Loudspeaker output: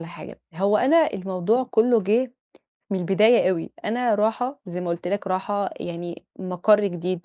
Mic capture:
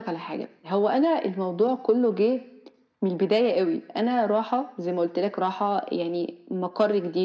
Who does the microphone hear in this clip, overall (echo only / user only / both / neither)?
echo only